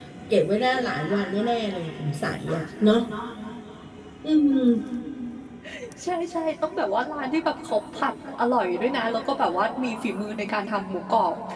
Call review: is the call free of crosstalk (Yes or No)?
Yes